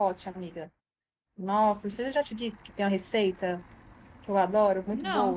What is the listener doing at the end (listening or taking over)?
taking over